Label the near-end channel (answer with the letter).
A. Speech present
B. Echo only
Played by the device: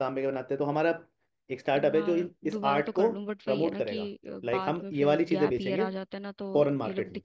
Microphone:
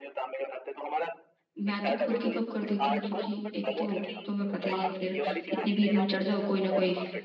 A